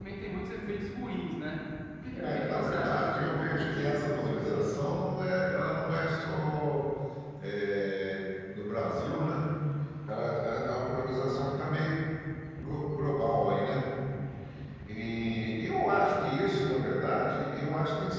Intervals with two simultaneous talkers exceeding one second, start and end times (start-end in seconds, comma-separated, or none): 2.2-4.7